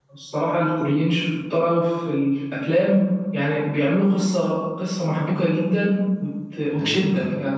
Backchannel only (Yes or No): Yes